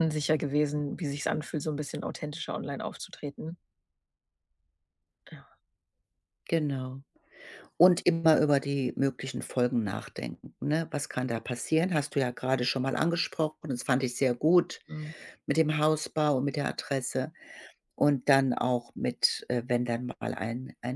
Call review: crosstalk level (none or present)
none